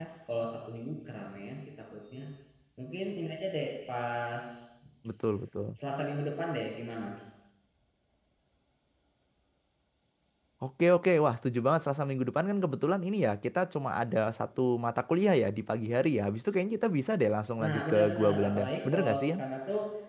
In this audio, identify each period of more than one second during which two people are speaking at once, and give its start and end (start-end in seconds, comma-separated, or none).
17.6-19.3